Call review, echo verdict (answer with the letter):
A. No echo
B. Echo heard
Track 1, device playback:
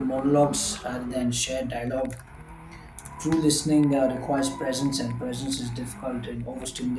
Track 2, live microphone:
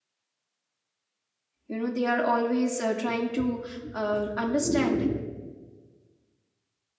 A